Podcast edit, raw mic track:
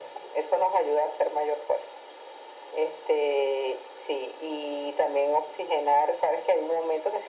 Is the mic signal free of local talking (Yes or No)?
Yes